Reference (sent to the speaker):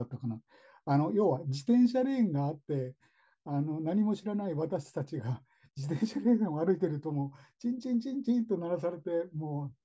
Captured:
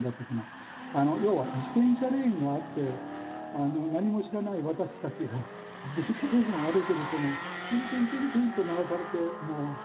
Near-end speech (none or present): none